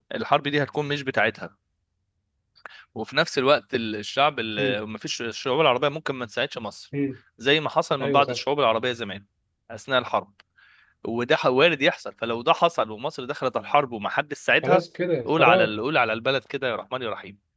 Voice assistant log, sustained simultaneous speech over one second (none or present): none